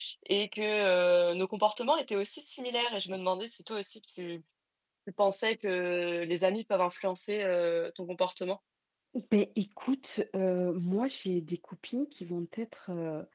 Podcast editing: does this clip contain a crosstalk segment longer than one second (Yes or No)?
No